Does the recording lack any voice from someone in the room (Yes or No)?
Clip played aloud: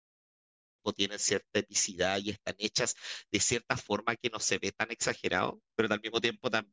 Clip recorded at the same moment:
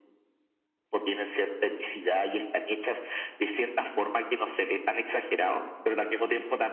Yes